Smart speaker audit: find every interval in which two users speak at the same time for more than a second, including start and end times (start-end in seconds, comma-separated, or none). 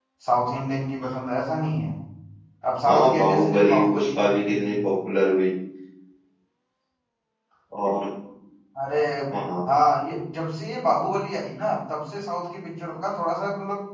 2.9-4.7